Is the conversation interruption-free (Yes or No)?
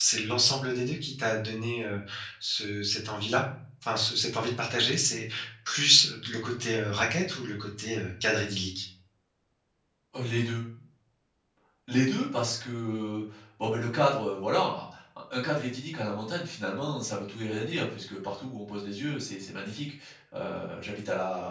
Yes